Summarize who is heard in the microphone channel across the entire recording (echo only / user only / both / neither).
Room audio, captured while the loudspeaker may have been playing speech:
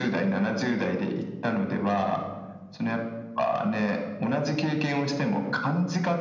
echo only